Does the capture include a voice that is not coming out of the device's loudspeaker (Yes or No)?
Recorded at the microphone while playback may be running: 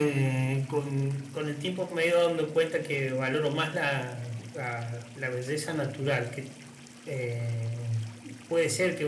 No